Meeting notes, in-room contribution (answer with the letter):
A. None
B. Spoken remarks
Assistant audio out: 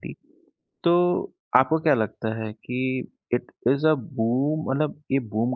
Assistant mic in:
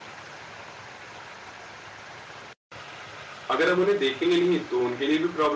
B